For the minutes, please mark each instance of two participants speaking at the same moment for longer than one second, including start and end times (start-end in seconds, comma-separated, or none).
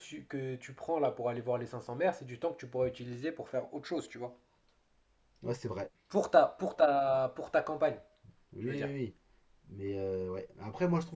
none